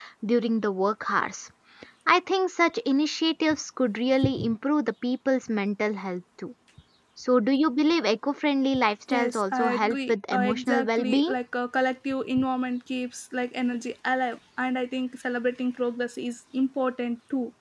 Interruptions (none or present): present